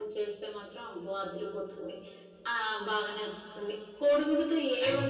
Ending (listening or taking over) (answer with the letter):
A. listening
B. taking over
A